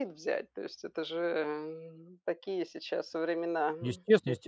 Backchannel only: No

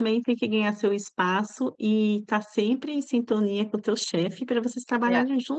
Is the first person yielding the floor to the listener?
No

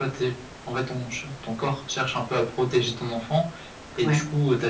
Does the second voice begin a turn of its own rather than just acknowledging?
No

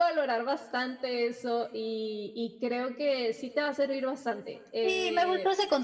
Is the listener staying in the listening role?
No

